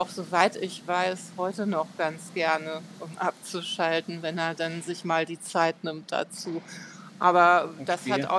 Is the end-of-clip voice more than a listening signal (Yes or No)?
No